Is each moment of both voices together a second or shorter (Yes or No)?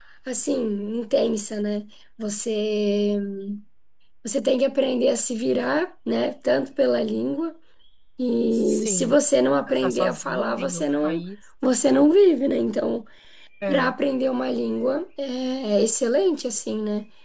No